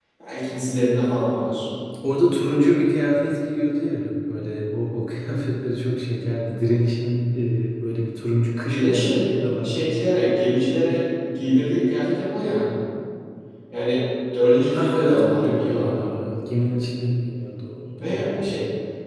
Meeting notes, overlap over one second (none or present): present